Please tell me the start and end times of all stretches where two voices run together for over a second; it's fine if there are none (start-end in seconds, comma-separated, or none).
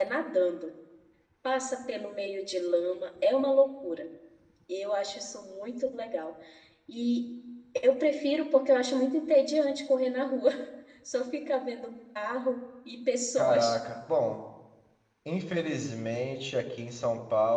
none